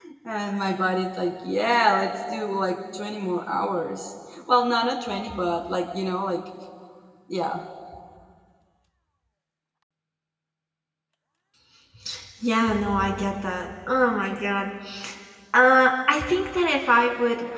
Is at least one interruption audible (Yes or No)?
No